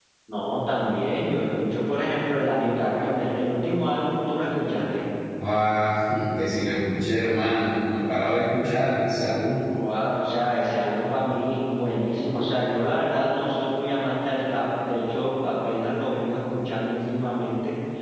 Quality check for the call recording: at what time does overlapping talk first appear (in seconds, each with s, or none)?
none